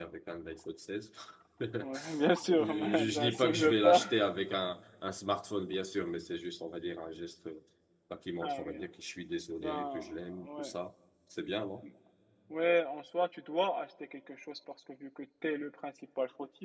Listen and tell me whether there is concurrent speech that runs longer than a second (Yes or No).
Yes